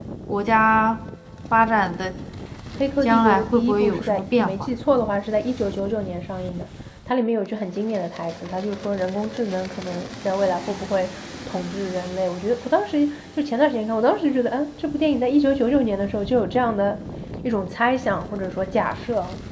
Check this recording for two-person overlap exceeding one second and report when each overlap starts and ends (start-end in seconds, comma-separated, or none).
3.0-4.7